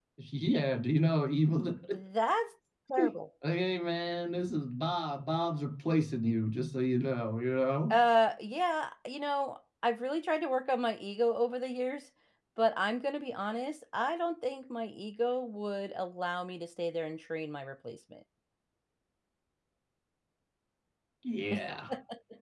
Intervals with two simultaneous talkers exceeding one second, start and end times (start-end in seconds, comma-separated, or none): none